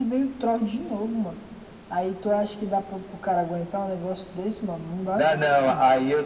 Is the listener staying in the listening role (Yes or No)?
No